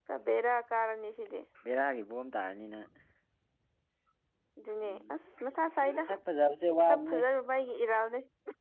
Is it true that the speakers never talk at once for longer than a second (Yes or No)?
Yes